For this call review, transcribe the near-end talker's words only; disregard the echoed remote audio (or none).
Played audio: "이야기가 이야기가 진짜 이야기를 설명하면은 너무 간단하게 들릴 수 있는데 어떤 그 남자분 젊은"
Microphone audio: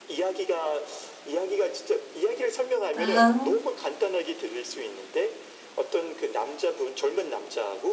아,